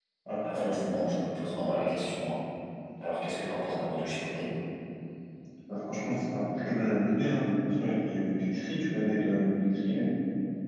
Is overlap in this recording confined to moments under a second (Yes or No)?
Yes